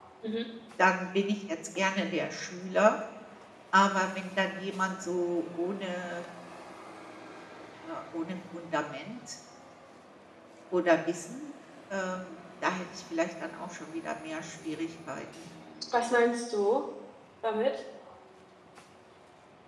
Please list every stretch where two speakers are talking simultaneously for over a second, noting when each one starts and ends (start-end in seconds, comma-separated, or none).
none